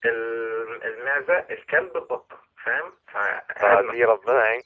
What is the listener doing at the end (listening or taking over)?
taking over